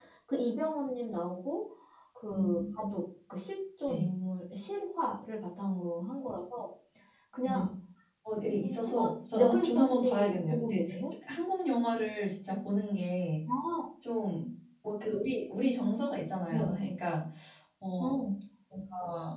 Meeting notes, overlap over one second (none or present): present